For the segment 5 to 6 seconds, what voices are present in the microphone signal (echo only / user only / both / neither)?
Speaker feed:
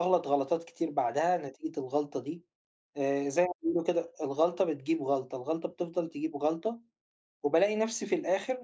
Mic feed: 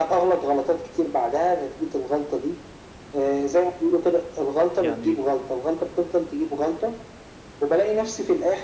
both